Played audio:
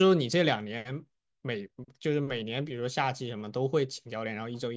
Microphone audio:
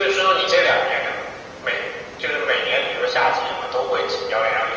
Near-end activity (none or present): none